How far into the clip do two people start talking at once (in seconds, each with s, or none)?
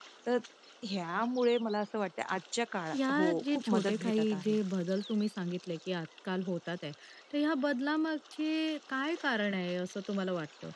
2.9 s